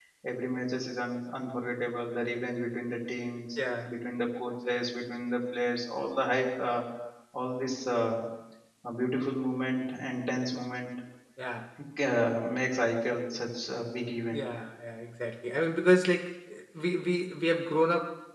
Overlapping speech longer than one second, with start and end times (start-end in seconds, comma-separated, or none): none